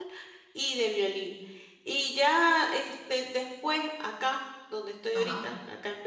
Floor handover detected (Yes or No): No